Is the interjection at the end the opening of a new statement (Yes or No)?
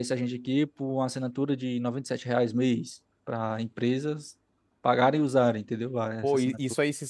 Yes